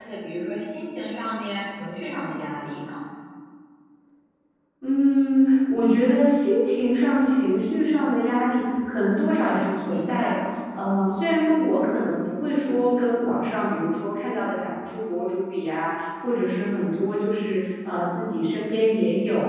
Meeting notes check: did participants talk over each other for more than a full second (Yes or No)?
No